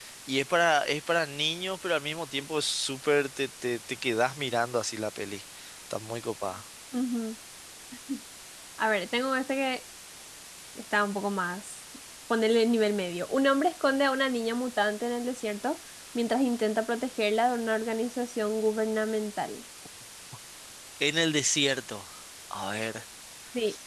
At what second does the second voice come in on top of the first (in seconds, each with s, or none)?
none